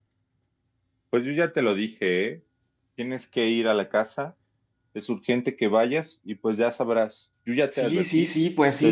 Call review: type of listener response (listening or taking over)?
taking over